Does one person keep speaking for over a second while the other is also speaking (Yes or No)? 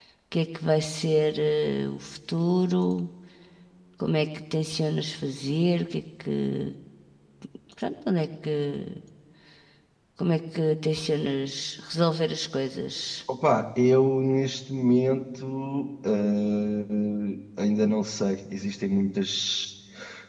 No